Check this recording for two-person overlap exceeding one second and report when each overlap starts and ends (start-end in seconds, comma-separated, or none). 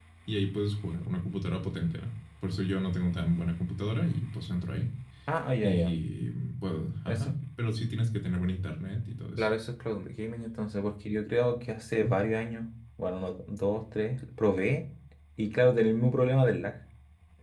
none